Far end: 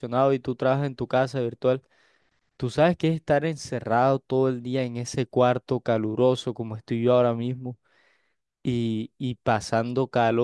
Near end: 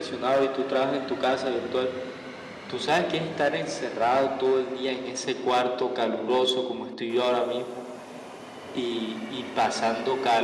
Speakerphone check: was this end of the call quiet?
Yes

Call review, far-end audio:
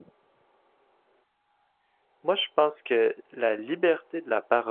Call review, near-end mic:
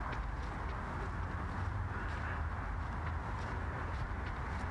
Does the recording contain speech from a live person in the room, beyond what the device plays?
No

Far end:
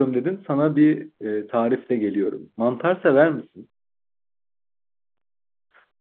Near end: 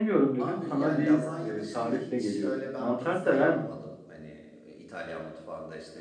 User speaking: Yes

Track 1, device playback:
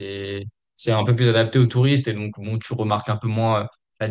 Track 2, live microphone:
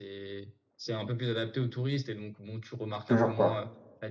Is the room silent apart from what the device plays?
No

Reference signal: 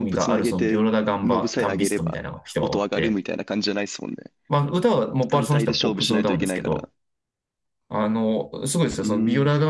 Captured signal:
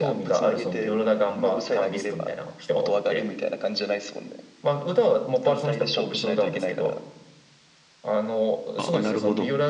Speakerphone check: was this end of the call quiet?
No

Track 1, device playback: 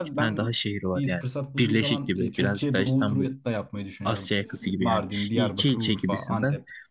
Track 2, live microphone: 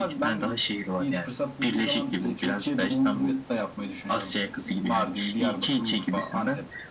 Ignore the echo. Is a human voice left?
No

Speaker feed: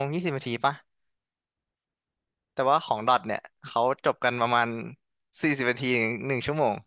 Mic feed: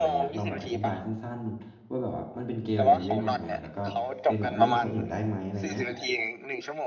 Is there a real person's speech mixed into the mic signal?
Yes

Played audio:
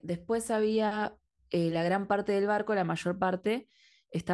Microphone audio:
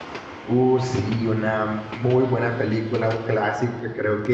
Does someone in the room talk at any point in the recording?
Yes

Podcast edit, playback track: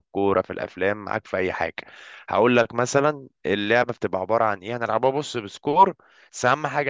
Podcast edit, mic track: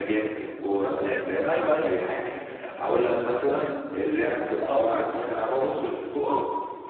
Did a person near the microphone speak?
Yes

